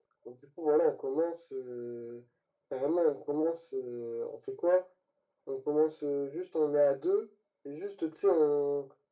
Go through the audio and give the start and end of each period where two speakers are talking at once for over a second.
none

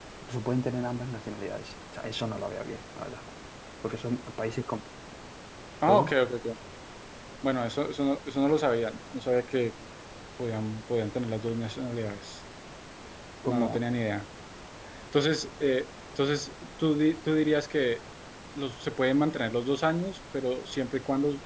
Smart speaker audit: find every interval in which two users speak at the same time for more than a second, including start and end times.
none

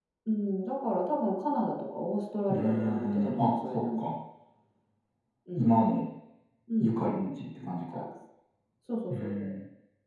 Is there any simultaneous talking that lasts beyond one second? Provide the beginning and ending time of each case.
2.5-4.0

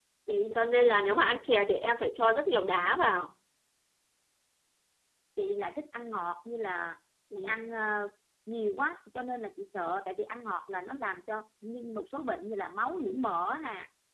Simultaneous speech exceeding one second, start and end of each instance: none

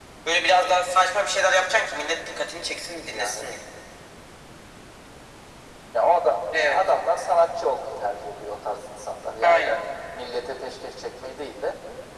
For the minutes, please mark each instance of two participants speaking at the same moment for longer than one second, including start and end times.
none

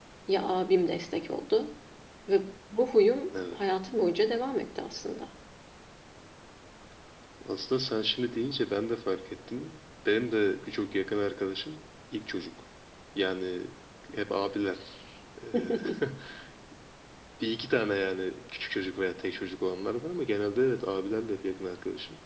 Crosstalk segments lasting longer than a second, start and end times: none

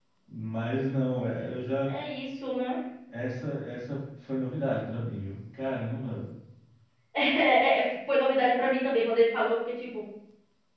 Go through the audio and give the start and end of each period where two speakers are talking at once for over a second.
none

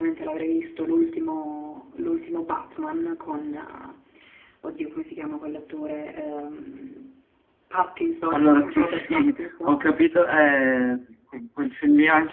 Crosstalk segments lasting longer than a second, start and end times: 8.3-9.8

